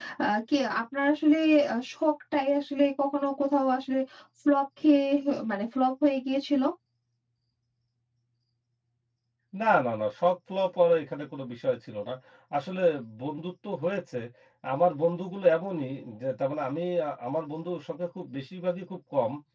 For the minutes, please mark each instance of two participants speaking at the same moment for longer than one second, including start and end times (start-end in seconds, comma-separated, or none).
none